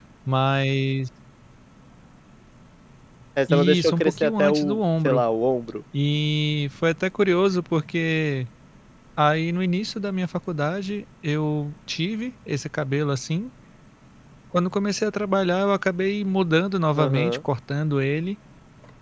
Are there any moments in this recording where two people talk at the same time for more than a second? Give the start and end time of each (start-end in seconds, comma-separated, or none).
3.5-5.2